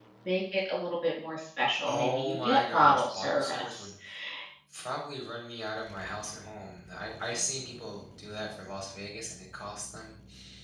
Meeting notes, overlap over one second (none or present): present